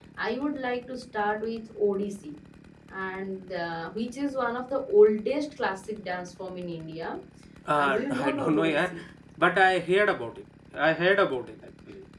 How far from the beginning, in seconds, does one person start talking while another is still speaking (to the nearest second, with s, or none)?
8 s